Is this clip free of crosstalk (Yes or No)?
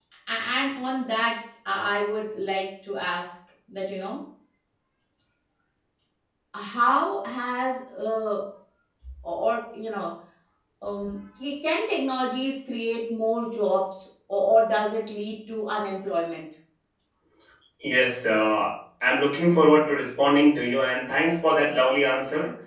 Yes